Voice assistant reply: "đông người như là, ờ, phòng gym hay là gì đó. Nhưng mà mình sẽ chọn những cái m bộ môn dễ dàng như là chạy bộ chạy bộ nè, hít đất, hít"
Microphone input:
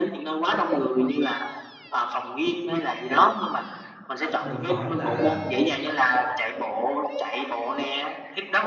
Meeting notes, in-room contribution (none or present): present